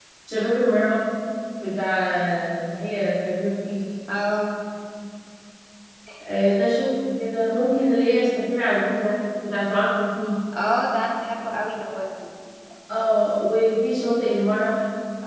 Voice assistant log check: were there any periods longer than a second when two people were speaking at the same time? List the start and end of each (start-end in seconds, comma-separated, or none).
none